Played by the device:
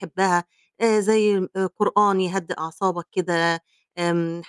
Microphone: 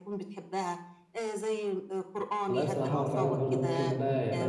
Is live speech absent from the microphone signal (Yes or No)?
No